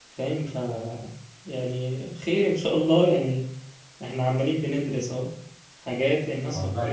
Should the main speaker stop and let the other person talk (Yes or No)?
No